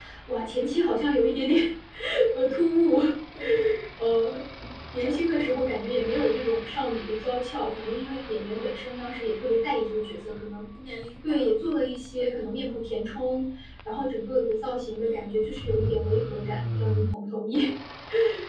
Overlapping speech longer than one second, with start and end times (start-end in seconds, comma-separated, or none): none